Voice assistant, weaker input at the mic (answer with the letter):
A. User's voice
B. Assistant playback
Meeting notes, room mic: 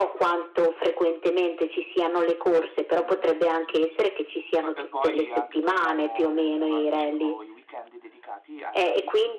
A